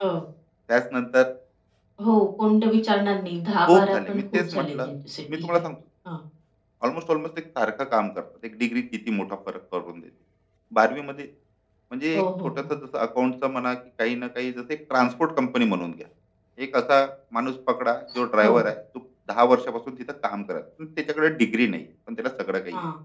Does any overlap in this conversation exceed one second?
Yes, from 3.7 s

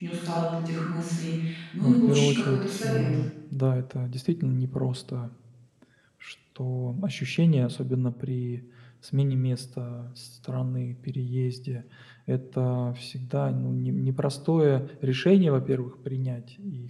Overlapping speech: Yes, from 1.8 s

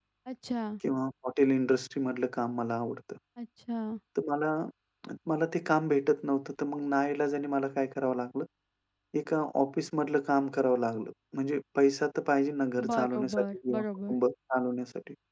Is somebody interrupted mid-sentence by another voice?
Yes, from 12.8 s

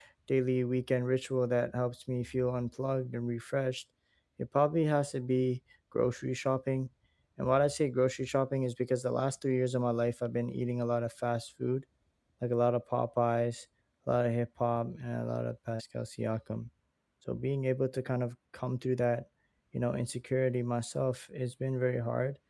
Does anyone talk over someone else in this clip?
No

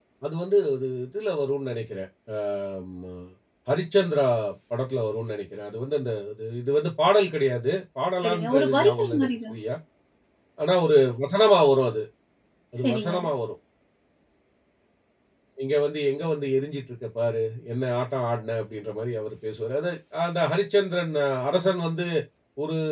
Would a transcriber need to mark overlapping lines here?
Yes, from 8.2 s

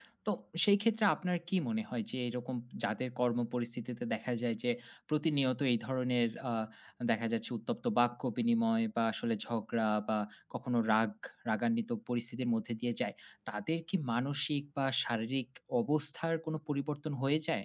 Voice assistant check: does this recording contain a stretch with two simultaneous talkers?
No

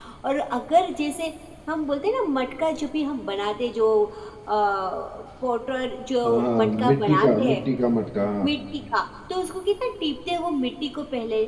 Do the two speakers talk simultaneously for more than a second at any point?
Yes, from 6.2 s

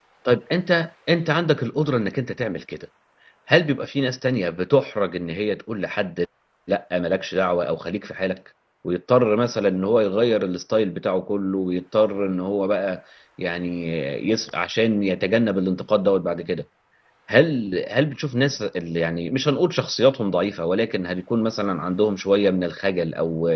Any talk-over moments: No

